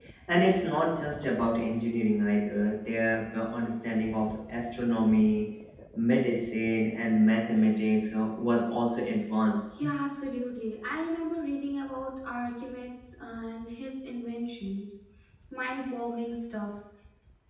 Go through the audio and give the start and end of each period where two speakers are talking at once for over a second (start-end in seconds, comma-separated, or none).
none